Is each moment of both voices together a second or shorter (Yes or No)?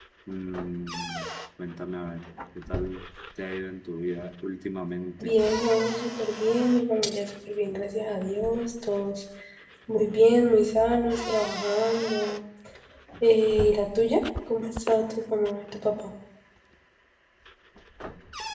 Yes